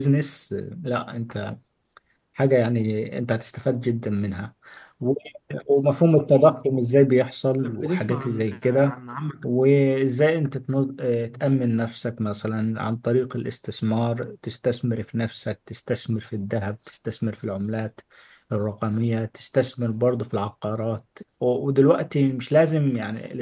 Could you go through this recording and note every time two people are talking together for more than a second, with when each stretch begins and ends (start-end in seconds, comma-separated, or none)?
7.6-8.9